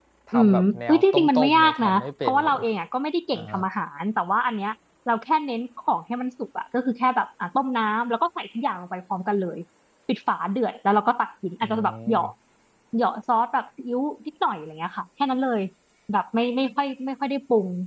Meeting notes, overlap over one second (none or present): present